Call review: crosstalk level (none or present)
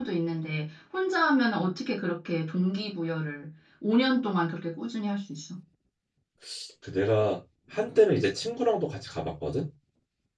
none